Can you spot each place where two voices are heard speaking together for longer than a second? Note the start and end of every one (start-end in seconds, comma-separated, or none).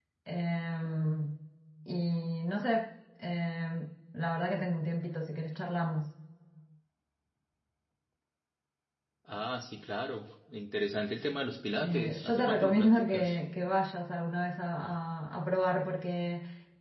11.8-13.4